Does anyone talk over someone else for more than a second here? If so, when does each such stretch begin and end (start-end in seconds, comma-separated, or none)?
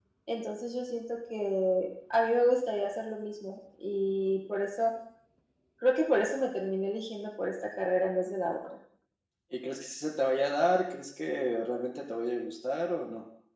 none